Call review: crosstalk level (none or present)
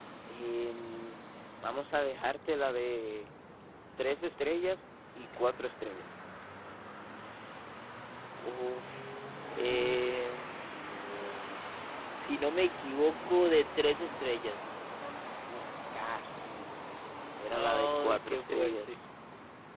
present